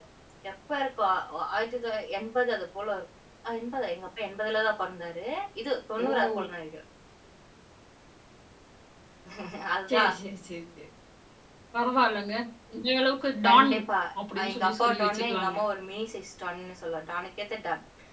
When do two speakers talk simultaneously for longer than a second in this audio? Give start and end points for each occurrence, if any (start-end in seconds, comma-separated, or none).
14.4-15.6